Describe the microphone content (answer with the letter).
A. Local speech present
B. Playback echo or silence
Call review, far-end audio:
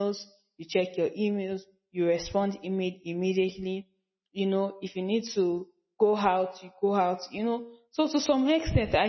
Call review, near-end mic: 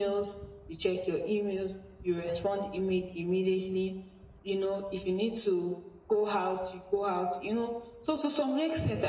B